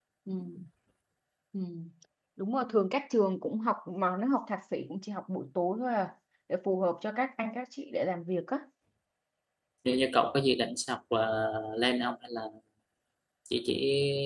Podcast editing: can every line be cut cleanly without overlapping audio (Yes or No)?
Yes